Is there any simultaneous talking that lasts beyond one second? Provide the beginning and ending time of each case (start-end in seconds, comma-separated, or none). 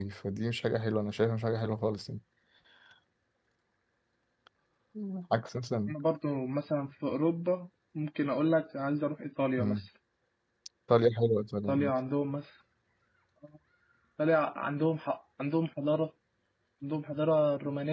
none